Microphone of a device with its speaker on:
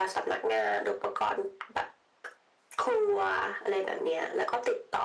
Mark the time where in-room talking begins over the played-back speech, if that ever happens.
none

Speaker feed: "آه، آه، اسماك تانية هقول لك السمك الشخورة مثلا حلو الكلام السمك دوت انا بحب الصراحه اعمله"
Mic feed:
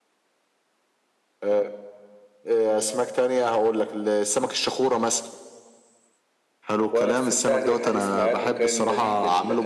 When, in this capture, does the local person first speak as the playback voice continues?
6.9 s

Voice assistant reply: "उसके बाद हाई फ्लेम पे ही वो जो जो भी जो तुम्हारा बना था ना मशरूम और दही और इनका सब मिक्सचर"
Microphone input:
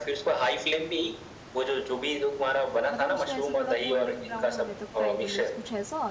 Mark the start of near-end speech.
2.9 s

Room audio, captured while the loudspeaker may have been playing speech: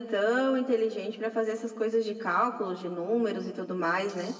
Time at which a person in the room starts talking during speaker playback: none

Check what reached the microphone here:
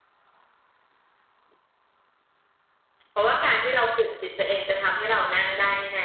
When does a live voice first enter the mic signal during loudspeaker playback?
3.1 s

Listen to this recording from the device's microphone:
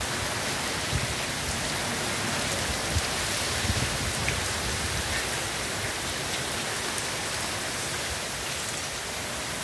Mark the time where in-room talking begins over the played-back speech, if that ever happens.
none

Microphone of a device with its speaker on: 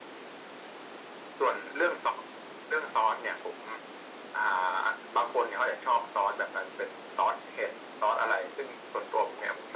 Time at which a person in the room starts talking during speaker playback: none

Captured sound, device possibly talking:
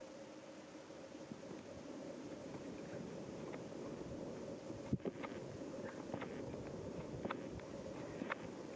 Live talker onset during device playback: none

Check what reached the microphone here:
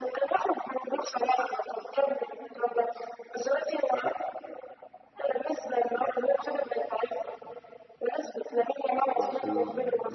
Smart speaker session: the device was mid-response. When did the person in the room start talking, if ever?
9.1 s

